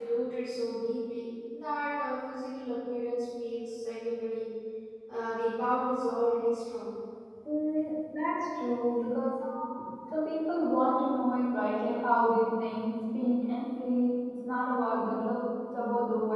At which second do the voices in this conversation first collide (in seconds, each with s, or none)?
none